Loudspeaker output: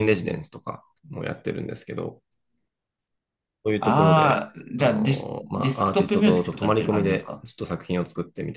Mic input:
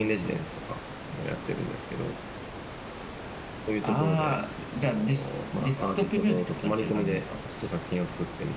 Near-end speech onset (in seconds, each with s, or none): none